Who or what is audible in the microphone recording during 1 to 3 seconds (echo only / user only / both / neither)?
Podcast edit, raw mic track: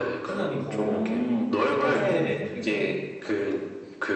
both